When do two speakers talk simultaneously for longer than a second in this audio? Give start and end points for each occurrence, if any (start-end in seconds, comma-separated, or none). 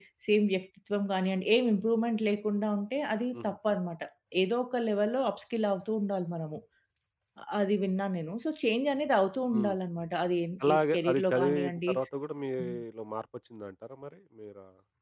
10.7-11.9